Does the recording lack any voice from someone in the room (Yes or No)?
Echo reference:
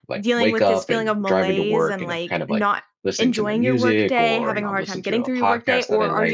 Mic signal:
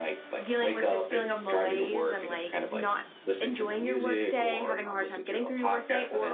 Yes